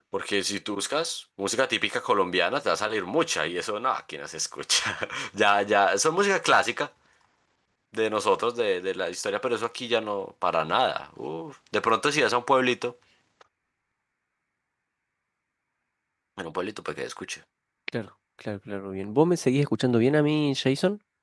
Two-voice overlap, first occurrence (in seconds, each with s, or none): none